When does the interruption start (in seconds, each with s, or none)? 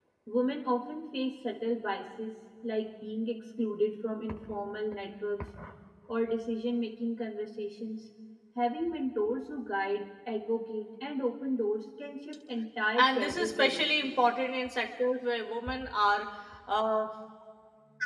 13.0 s